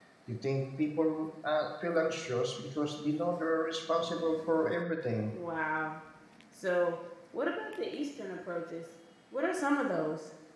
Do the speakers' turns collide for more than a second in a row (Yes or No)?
No